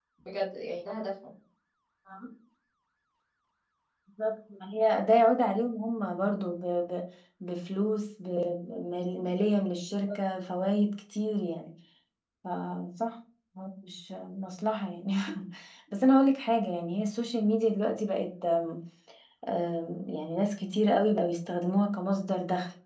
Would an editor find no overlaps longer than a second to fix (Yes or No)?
Yes